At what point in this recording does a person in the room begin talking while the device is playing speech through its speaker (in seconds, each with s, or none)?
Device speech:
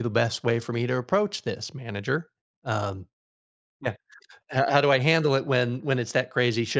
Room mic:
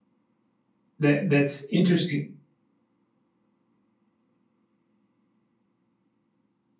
1.0 s